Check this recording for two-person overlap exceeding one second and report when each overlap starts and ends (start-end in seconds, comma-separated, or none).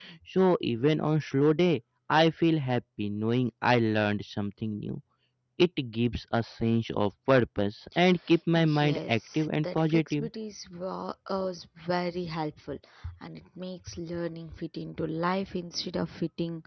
8.6-10.2